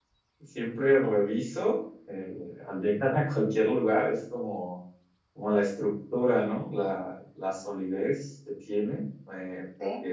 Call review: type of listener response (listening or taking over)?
listening